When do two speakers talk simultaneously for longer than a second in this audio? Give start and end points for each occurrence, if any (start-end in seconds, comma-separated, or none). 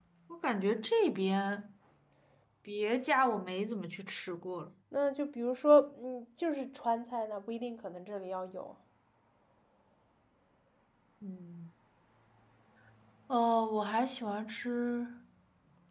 none